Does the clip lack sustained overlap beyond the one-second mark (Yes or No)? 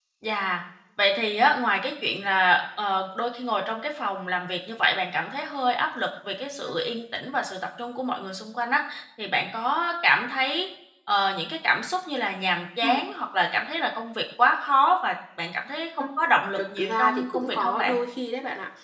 No